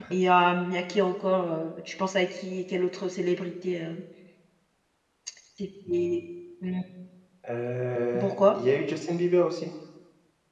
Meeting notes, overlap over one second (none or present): none